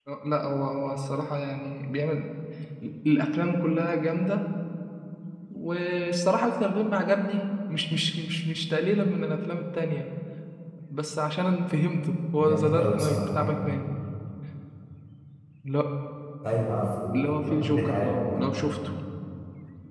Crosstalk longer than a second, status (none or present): present